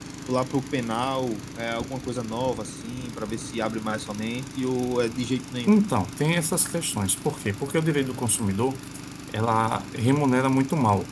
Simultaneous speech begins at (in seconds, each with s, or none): none